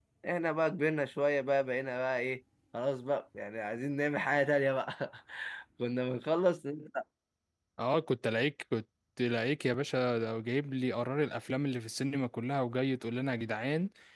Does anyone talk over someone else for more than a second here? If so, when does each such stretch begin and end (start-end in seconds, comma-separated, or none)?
none